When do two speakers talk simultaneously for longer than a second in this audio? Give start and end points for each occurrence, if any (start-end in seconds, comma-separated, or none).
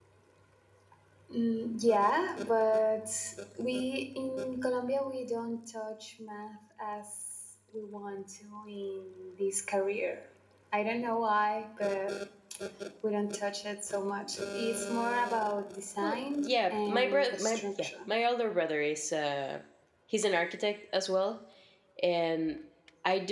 16.0-18.1